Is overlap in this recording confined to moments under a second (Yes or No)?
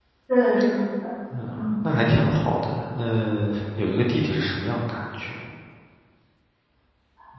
Yes